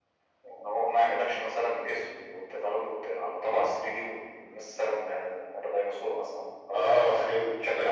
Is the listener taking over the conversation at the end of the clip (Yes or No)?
Yes